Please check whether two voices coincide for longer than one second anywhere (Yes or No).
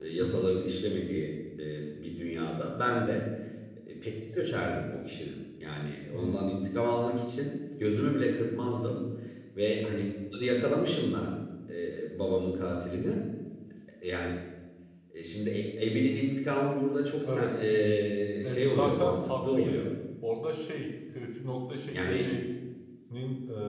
Yes